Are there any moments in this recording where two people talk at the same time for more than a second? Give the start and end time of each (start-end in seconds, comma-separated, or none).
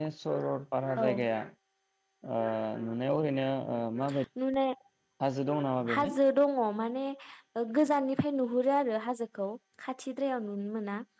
none